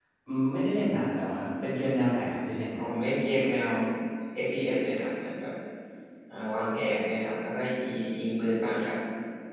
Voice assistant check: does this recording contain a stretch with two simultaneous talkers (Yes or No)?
No